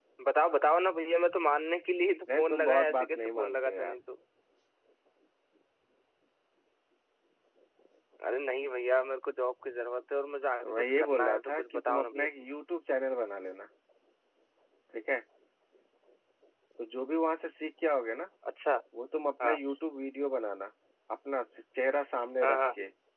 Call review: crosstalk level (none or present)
present